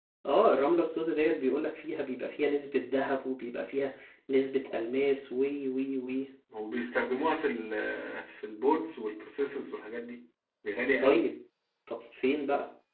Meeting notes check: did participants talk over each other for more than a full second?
No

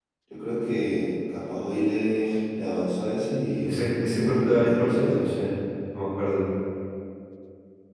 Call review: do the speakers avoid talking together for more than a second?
No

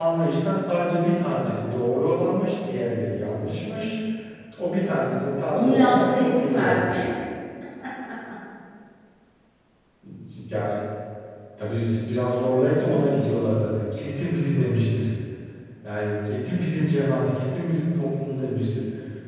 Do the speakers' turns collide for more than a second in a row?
Yes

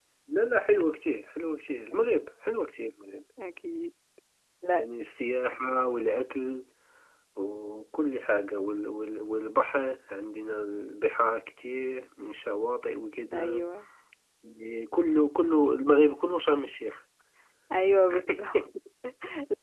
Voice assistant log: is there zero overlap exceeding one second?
Yes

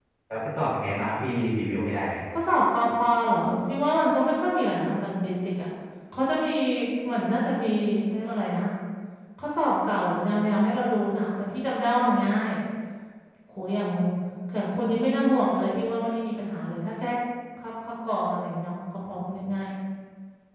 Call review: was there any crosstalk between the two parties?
No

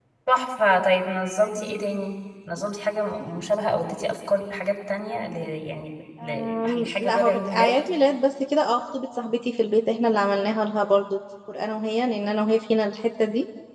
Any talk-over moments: Yes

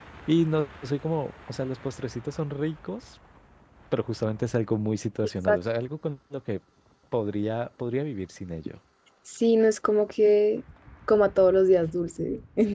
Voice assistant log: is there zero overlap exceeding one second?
Yes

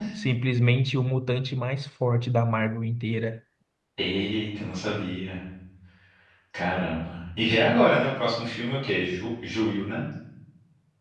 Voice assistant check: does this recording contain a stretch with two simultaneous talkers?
No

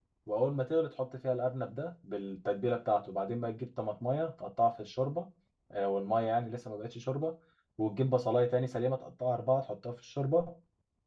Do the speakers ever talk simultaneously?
No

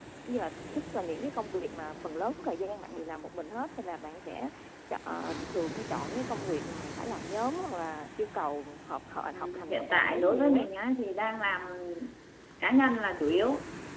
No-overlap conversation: No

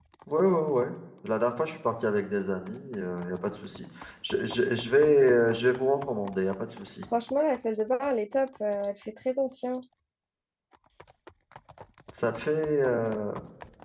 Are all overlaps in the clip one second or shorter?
Yes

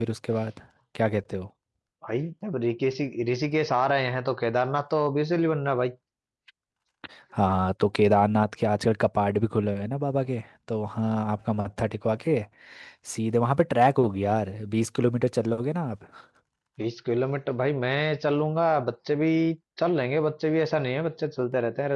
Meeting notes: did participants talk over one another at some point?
No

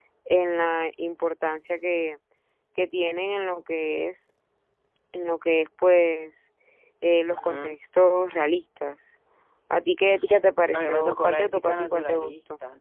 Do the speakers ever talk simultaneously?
Yes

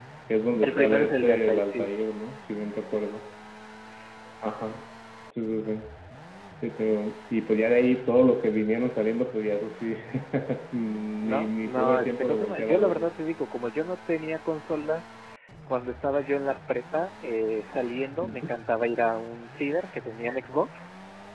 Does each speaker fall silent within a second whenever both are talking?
No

